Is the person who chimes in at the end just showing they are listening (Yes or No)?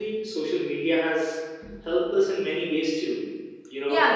No